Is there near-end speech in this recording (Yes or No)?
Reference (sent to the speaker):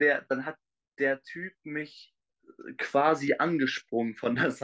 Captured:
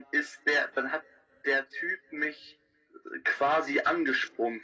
No